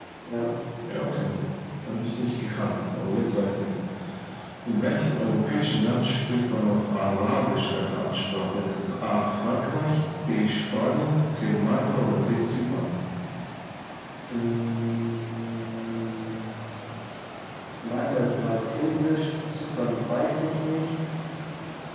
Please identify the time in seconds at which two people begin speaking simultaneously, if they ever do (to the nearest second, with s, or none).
none